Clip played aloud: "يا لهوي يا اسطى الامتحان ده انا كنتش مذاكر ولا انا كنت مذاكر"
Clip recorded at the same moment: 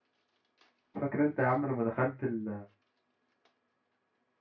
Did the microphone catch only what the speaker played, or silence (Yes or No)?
No